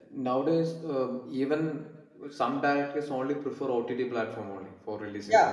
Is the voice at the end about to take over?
Yes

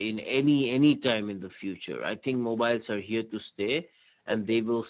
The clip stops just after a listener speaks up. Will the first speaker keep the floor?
Yes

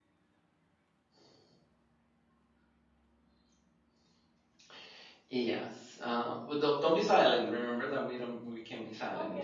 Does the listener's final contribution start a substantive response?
Yes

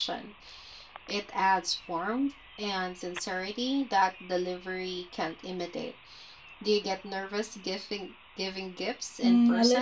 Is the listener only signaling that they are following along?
No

